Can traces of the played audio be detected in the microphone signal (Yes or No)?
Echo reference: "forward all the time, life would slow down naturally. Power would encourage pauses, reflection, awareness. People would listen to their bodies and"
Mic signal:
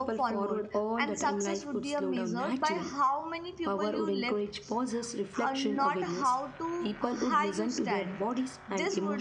Yes